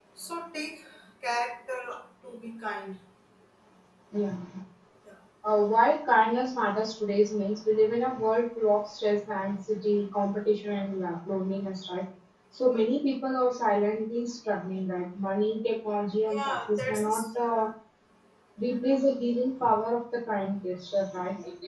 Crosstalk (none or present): present